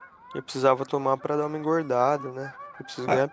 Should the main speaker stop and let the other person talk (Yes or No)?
Yes